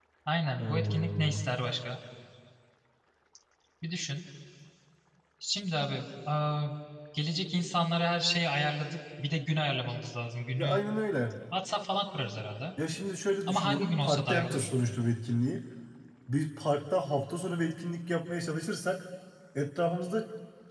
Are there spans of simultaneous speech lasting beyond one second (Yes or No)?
Yes